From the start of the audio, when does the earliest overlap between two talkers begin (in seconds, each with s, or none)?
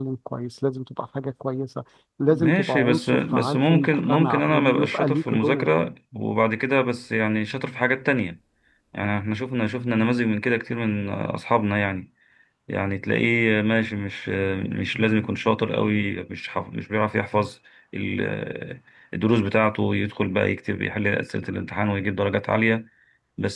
2.3 s